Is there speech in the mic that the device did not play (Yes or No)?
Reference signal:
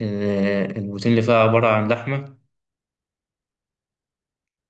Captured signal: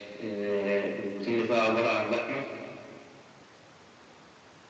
No